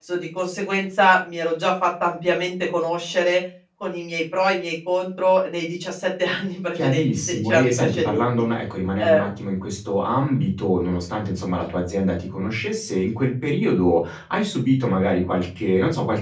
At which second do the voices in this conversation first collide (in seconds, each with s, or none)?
6.8 s